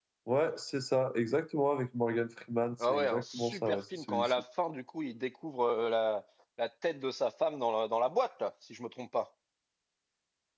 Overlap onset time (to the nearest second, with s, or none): 3 s